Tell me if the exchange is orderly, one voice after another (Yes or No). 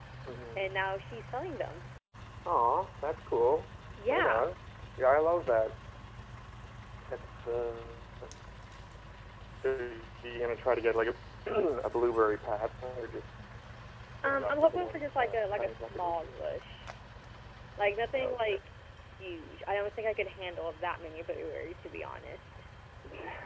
No